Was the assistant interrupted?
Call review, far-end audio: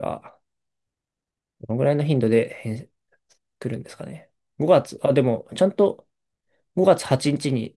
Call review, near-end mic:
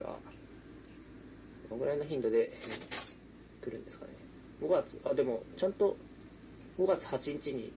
No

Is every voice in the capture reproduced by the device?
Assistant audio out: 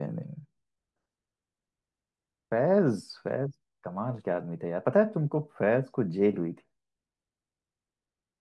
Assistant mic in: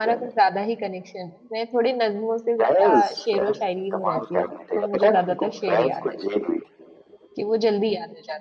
No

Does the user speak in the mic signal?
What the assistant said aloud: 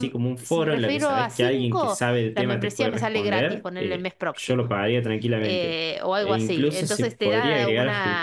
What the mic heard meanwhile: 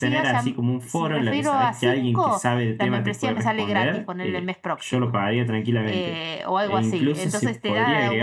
No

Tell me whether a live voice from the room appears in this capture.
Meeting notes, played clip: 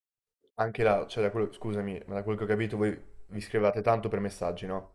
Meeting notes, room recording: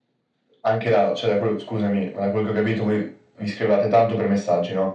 No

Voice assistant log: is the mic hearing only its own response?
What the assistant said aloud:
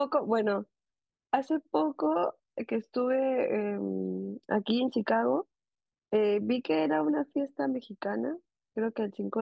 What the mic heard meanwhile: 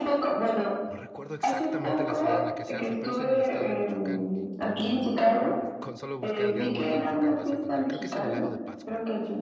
No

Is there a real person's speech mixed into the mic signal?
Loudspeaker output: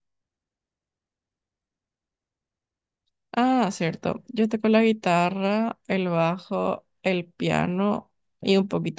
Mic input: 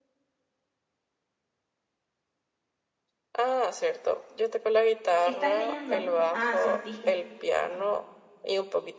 Yes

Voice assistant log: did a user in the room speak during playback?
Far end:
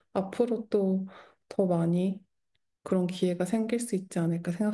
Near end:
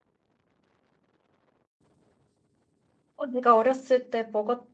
Yes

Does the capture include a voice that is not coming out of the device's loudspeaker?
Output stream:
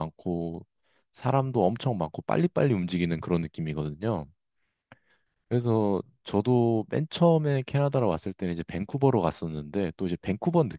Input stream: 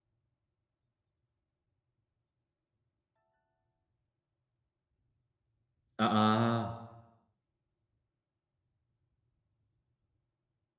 Yes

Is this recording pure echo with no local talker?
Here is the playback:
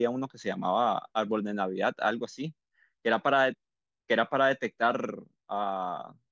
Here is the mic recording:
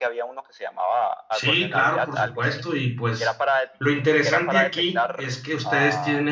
No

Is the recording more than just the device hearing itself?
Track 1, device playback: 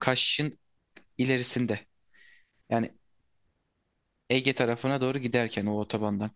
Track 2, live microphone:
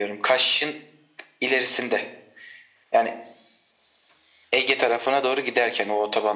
No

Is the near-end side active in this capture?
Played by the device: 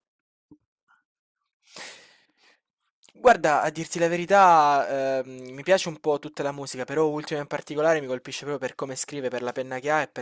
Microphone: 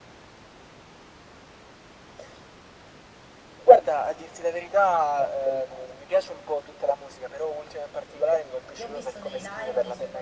Yes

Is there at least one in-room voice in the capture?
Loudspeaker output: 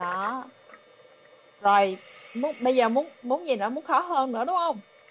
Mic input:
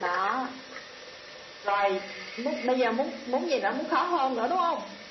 No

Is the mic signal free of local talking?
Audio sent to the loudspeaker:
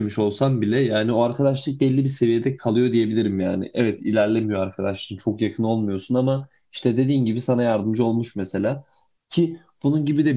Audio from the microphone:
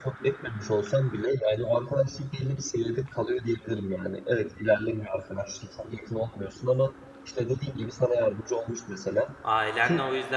No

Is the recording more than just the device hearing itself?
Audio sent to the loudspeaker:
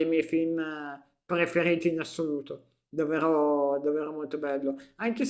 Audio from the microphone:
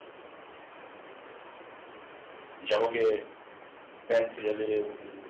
Yes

